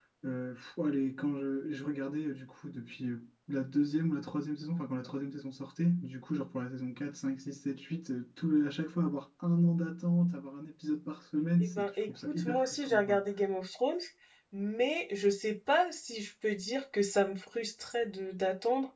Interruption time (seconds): 11.6 s

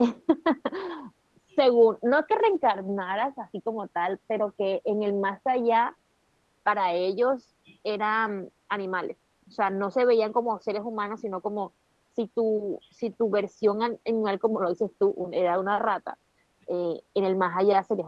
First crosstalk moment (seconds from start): none

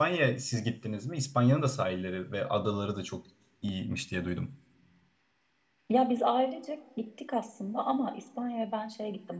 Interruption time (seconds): none

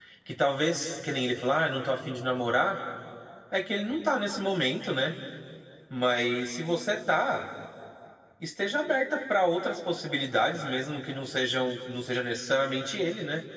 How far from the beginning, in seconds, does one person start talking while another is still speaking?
none

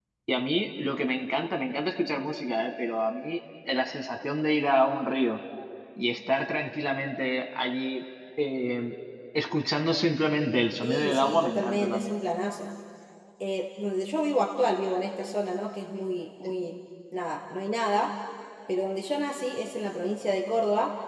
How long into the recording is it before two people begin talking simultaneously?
10.8 s

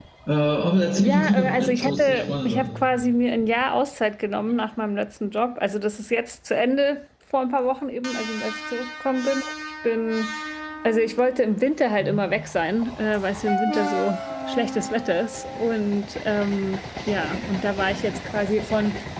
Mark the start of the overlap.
1.0 s

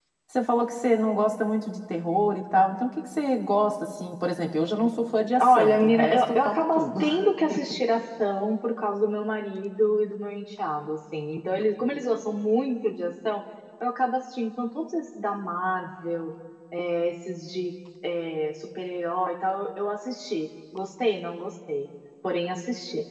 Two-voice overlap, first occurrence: 5.4 s

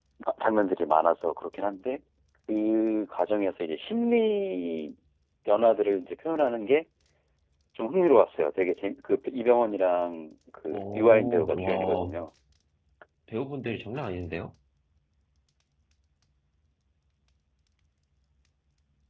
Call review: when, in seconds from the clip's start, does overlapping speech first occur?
10.7 s

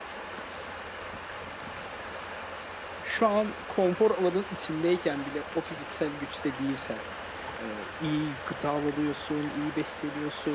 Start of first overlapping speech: none

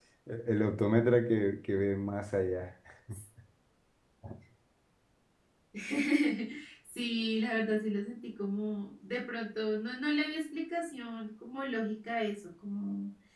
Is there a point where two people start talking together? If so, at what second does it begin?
none

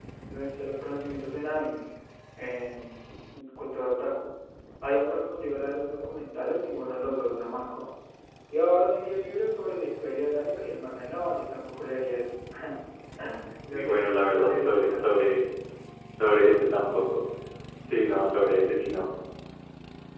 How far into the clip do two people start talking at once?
13.7 s

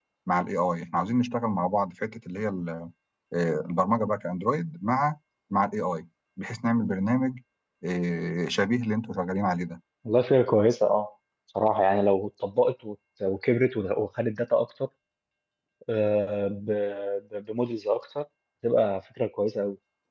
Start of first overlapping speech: none

